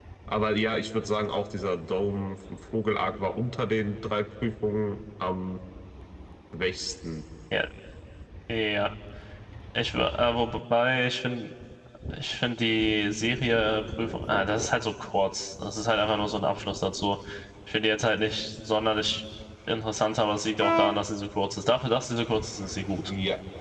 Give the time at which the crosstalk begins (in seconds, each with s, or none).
none